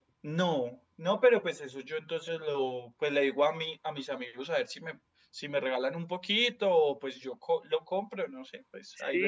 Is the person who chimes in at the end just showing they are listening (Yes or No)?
No